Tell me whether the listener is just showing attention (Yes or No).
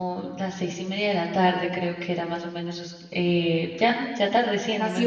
No